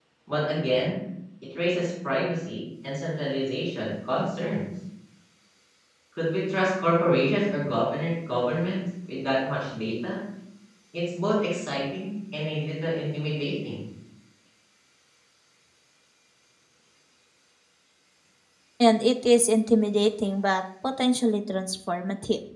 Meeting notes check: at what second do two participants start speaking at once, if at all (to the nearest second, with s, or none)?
none